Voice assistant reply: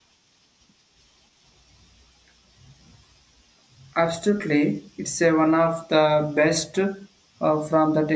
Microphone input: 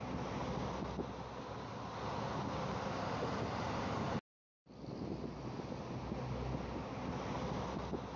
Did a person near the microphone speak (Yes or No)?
No